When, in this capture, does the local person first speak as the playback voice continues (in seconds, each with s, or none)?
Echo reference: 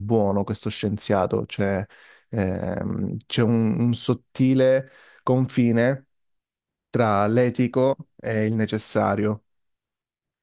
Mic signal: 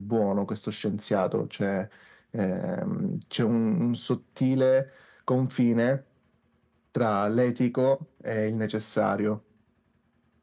none